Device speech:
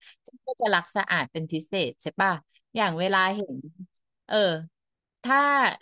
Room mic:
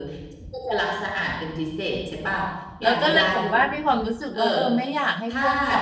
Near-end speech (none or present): present